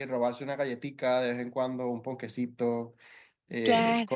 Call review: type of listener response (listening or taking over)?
listening